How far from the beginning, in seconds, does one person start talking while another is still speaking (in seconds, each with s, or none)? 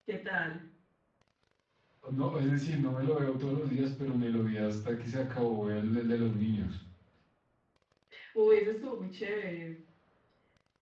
none